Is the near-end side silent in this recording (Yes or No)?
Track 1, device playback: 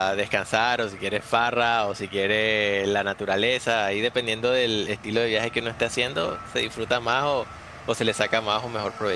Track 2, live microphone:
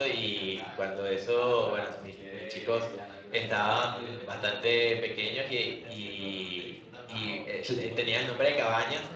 No